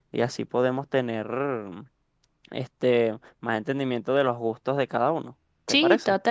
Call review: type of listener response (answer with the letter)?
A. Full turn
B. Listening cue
A